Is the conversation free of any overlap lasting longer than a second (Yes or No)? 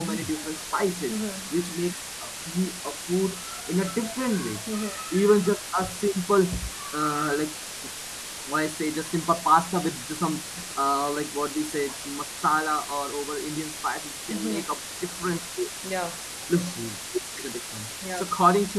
Yes